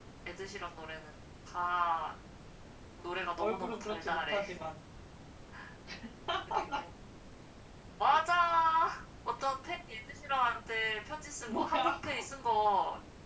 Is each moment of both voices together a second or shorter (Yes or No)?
No